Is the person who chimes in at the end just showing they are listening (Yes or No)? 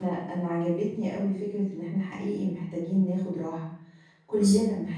Yes